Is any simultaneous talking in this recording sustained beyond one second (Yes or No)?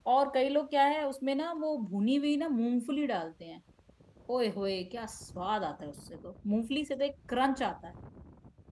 No